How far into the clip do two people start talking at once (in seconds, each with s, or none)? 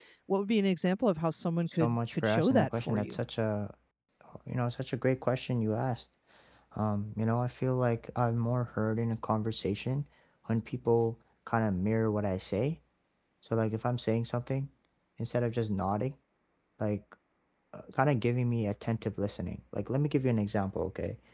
1.7 s